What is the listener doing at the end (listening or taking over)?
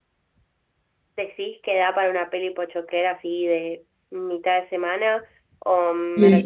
taking over